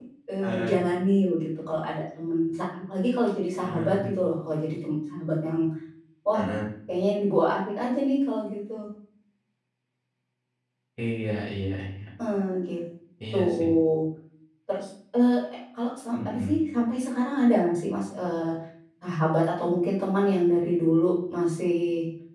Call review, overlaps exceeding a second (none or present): none